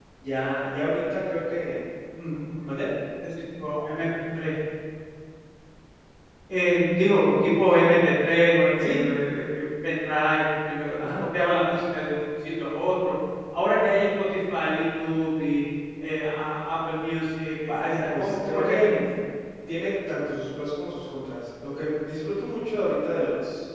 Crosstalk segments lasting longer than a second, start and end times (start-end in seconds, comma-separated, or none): 17.8-19.0